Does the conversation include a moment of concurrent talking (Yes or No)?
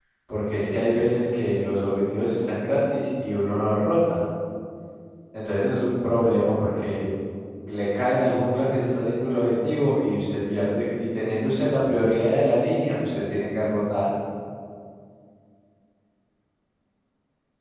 No